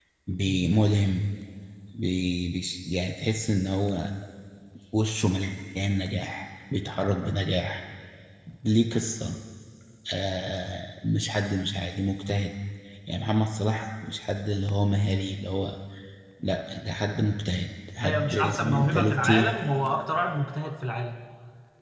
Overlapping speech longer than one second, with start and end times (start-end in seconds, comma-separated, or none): 18.0-19.5